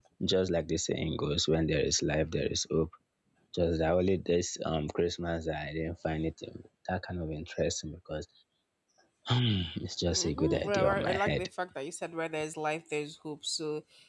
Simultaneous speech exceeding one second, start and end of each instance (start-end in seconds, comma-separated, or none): 10.1-11.5